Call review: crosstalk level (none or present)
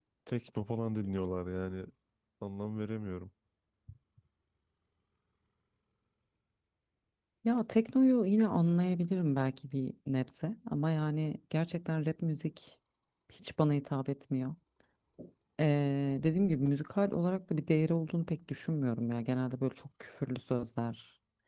none